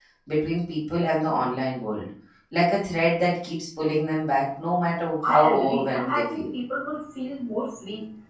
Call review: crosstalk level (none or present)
present